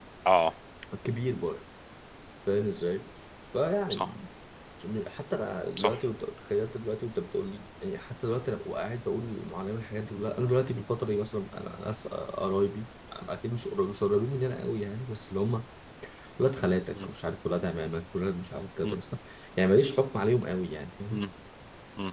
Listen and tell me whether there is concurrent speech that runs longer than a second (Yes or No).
No